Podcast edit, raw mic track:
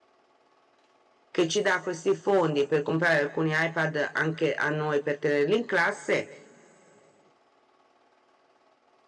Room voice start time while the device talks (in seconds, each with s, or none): 1.3 s